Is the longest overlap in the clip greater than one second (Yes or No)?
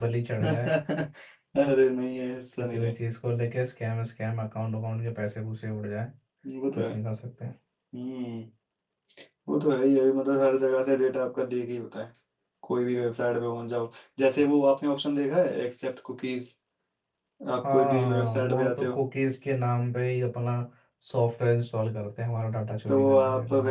Yes